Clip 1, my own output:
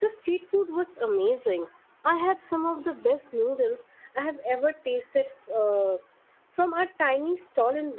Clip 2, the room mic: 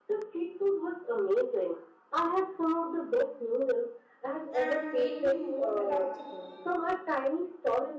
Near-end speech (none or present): present